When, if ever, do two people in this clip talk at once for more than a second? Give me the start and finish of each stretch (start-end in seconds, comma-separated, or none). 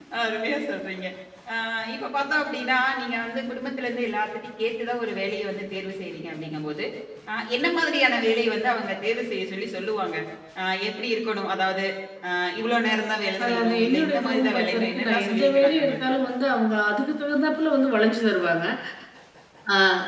13.4-16.1